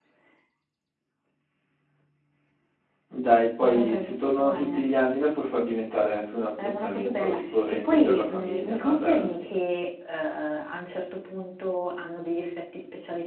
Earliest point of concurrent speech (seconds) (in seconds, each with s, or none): 3.6 s